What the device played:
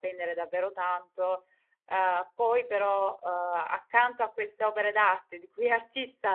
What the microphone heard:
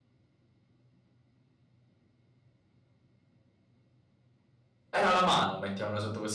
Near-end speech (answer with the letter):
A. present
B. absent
A